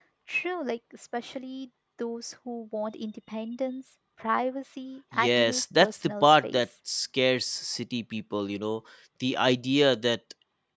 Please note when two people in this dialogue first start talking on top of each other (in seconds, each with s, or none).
5.1 s